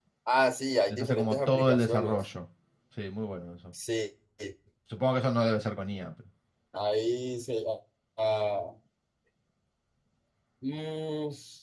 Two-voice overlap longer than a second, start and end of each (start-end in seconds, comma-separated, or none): 0.9-2.2